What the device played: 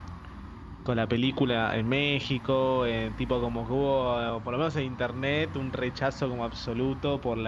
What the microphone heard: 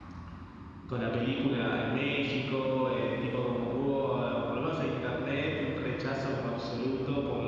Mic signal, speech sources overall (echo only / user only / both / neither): echo only